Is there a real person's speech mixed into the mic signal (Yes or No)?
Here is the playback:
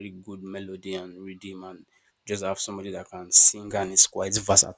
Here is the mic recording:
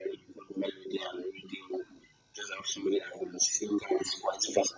No